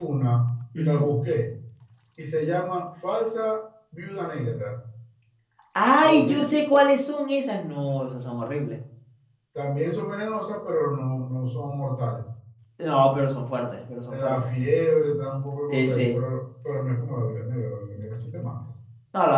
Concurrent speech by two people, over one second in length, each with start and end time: none

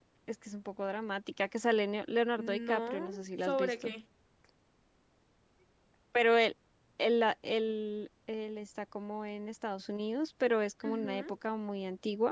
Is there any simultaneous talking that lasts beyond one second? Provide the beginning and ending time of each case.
2.4-3.9

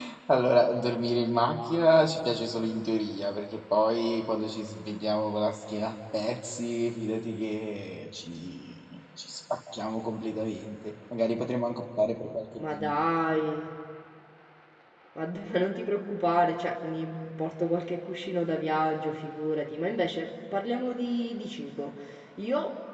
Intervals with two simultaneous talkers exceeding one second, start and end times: none

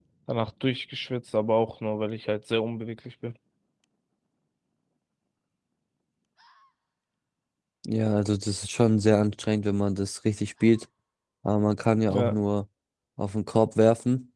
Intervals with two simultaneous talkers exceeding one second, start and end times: none

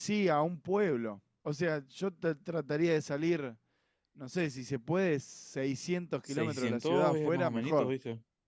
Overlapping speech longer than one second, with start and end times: 6.3-7.9

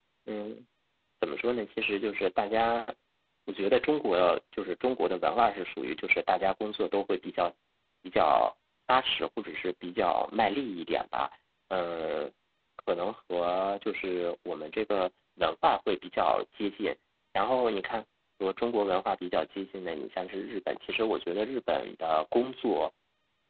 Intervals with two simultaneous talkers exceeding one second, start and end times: none

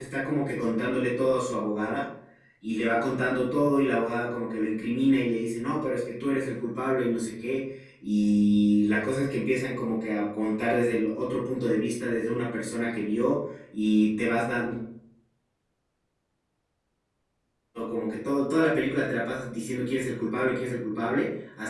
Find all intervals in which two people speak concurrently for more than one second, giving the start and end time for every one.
none

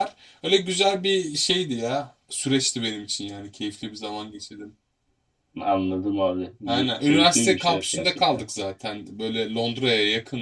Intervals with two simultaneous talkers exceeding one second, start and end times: 6.7-8.4

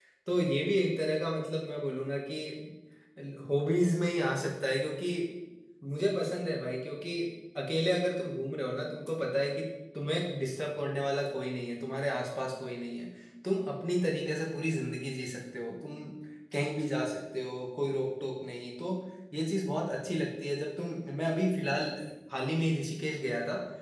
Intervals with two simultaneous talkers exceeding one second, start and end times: none

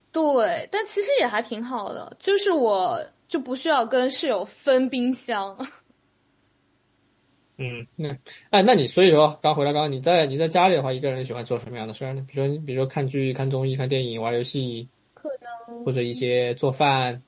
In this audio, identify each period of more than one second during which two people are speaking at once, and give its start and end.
none

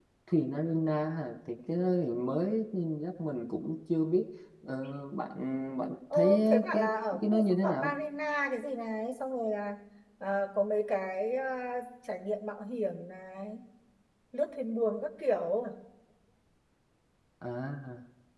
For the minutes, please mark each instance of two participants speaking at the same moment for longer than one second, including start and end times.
6.1-7.9

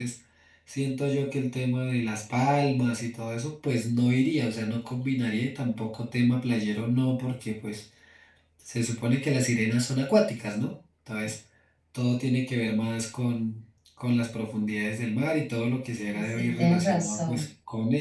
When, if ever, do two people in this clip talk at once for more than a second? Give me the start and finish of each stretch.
16.0-17.4

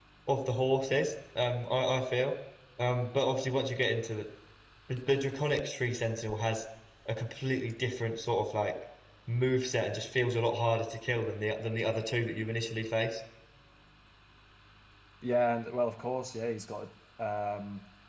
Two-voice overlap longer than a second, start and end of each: none

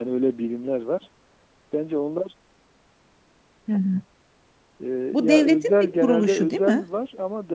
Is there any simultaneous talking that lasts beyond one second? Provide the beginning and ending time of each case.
5.1-6.8

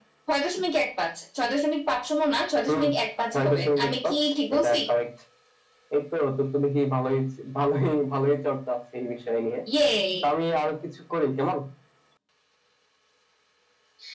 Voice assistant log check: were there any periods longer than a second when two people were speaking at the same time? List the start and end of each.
3.3-4.8

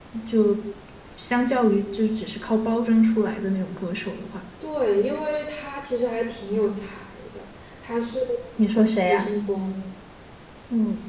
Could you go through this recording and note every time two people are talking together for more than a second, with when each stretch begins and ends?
none

